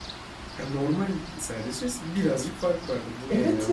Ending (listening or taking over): taking over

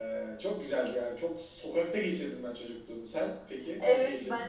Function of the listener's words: taking over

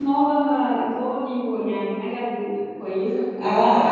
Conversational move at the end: taking over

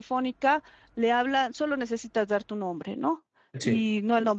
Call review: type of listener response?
listening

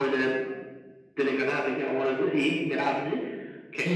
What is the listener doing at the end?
taking over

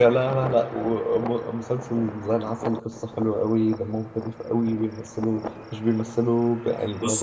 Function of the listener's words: listening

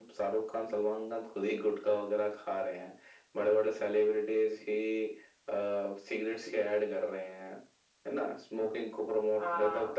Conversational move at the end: listening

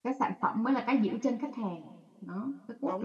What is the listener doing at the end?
taking over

